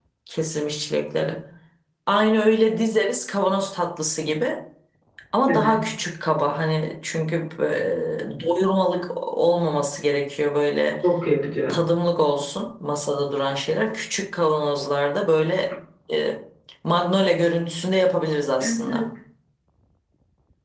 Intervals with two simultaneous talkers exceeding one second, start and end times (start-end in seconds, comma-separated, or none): none